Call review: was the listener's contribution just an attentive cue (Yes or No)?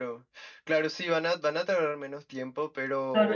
No